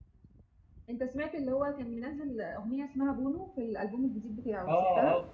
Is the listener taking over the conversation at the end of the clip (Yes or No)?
Yes